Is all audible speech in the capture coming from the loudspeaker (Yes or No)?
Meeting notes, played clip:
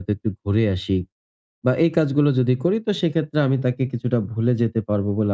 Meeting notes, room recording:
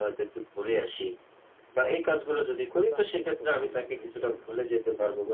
No